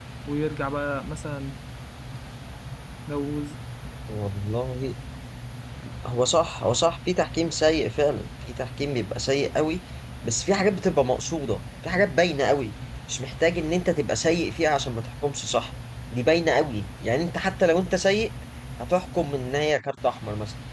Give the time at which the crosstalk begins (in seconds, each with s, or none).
none